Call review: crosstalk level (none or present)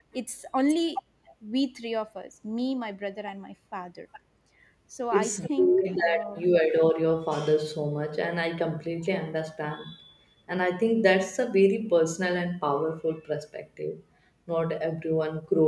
present